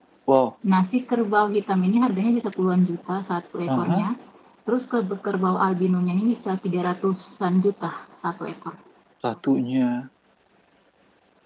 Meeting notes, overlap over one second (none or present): none